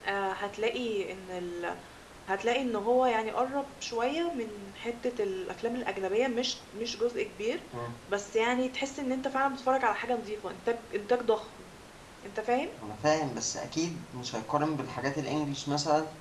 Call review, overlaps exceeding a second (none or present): none